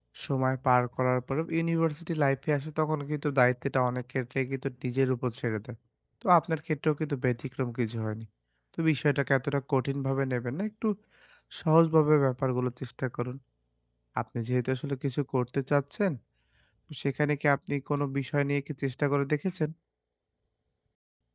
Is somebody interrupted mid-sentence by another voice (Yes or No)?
No